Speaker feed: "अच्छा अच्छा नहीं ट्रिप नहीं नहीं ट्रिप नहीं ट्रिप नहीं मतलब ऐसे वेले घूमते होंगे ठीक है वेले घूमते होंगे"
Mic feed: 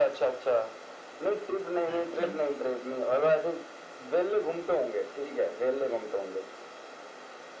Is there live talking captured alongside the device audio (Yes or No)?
Yes